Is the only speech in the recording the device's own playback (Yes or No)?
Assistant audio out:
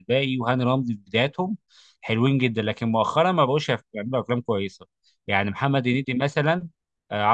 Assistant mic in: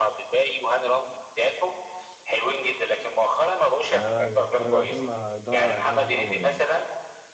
No